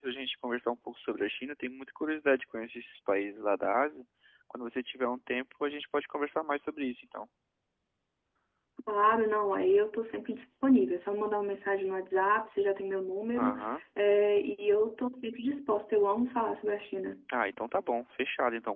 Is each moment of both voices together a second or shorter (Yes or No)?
Yes